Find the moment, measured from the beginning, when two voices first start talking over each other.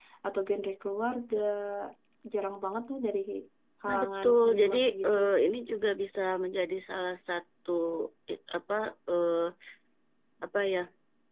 4 s

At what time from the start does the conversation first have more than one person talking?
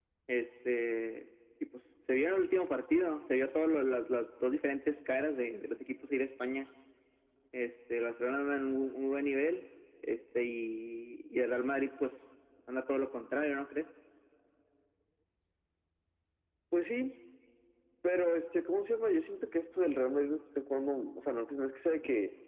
none

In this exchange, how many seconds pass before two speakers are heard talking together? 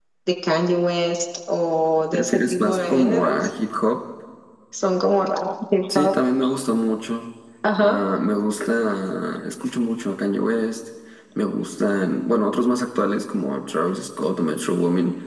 2 s

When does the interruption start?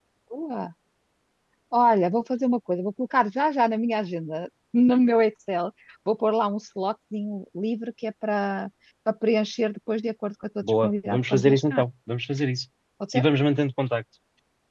11 s

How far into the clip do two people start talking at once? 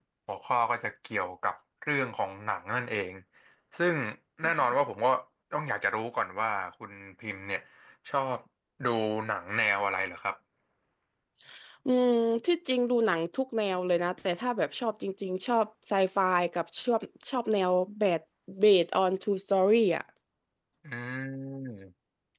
none

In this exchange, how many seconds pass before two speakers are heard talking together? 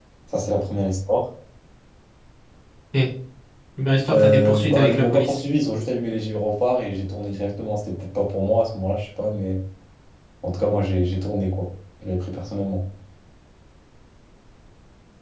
4 s

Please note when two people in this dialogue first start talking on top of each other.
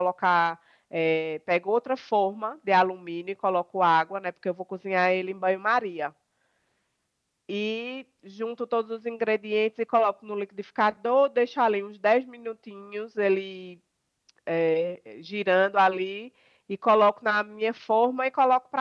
none

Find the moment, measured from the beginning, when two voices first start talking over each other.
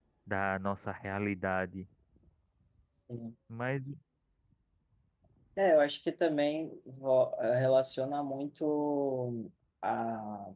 none

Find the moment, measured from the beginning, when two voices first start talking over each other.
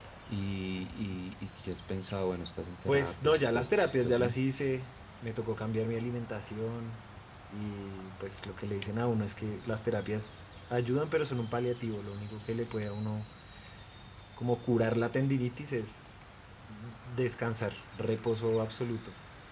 3 s

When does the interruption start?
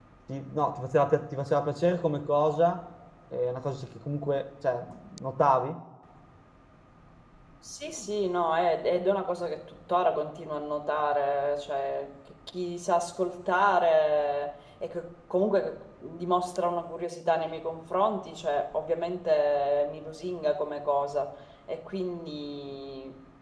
none

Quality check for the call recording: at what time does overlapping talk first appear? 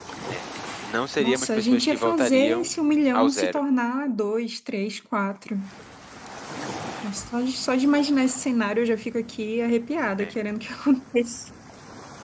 1 s

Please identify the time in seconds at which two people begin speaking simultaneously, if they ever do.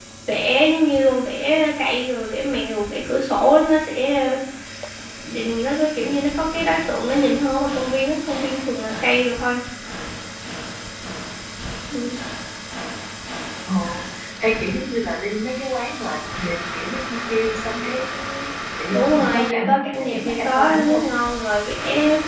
19 s

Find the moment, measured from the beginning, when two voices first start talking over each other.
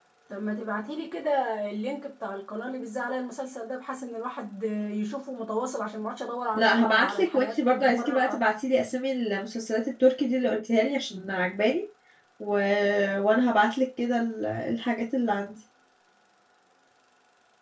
7 s

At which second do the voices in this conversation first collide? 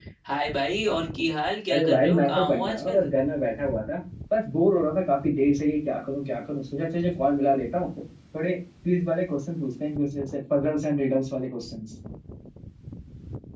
2 s

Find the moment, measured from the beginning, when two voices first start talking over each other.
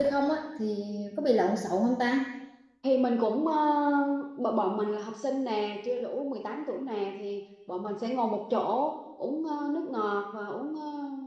none

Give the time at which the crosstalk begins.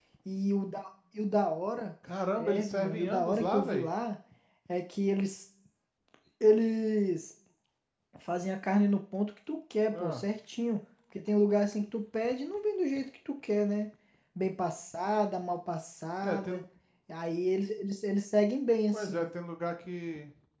2 s

